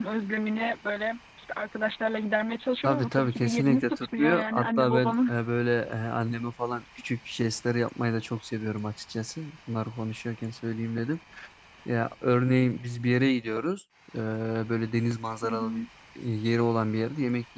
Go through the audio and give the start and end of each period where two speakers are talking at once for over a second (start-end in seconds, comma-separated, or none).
2.8-5.3